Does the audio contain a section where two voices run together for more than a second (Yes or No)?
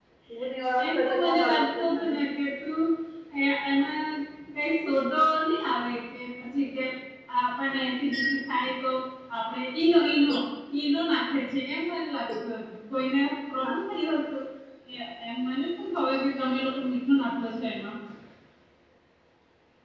Yes